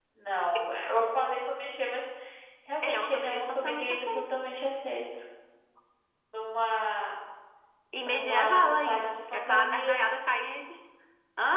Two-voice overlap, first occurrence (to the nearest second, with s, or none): 3 s